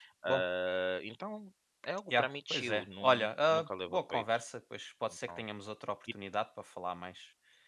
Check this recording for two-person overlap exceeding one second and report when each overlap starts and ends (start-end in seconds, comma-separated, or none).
2.2-4.2